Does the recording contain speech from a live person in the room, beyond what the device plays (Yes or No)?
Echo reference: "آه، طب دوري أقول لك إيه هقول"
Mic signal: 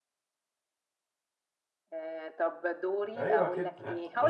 Yes